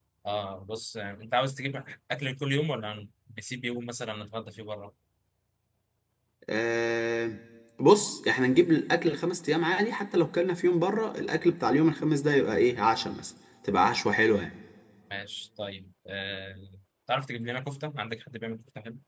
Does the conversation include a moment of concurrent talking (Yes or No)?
No